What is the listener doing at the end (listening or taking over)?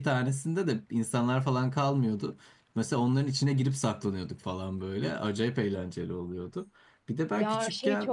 taking over